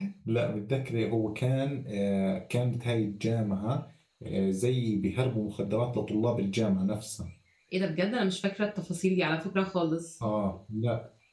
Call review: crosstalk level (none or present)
none